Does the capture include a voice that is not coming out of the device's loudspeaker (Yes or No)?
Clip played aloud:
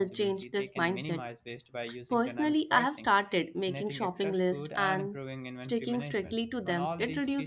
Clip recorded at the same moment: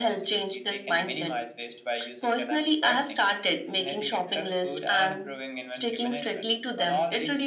No